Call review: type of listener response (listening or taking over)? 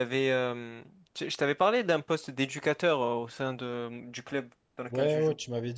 taking over